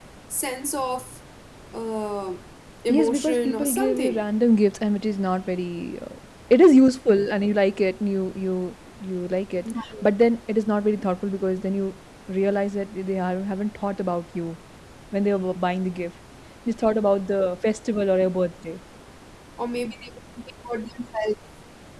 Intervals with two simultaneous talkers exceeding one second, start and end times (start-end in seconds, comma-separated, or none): 2.9-4.2